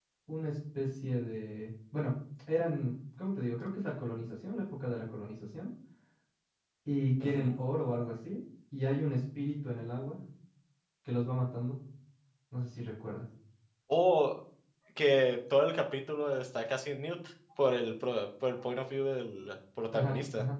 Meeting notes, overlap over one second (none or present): none